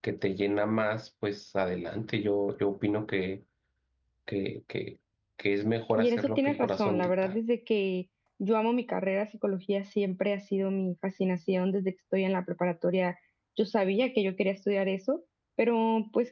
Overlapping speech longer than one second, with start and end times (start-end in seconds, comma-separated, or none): 6.0-7.3